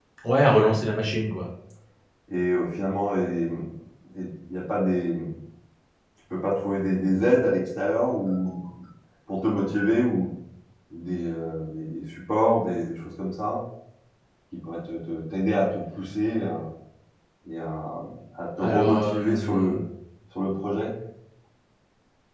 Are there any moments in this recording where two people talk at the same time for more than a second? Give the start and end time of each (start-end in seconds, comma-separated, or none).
18.6-19.8